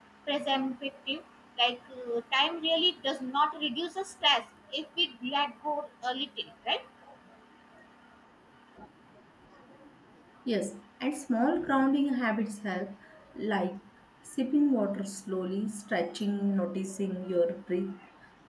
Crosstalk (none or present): none